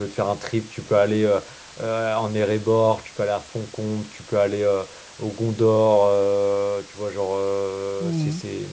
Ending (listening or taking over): listening